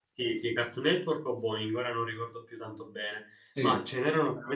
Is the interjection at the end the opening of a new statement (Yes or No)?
No